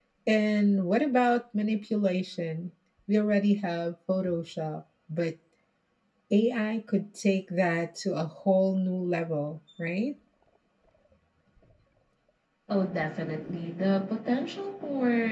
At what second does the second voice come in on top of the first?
none

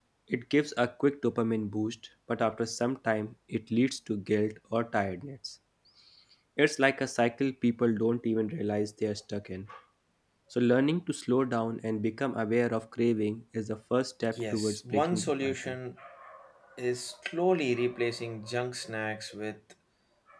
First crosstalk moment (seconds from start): 14 s

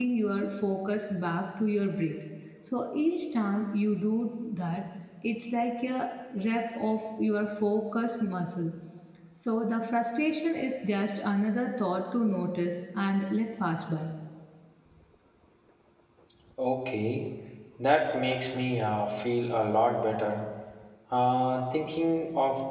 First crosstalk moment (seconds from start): none

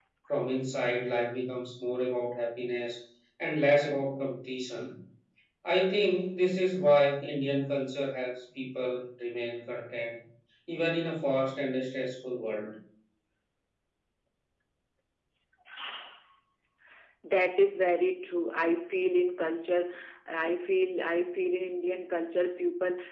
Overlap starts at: none

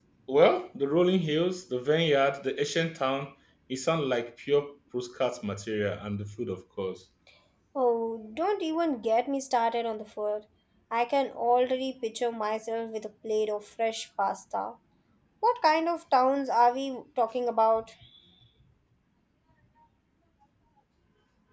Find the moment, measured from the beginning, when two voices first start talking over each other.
none

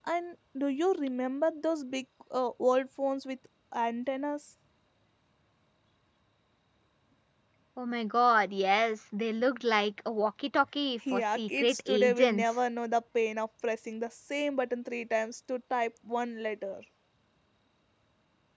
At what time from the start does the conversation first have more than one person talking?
11 s

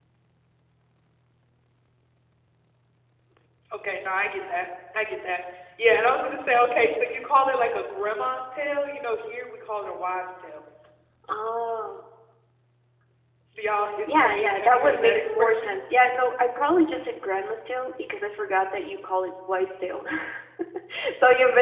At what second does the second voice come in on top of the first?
14 s

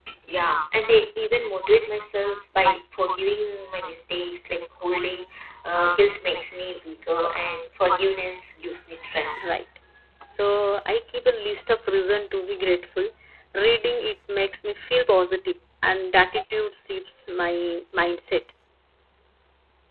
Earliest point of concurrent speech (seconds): none

